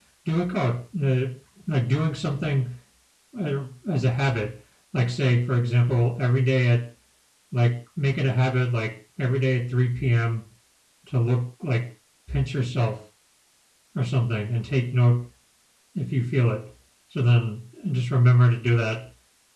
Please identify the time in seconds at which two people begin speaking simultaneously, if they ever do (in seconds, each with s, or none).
none